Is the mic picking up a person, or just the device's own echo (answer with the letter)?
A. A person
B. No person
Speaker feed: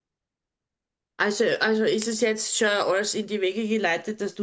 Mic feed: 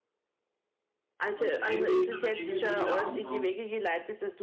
A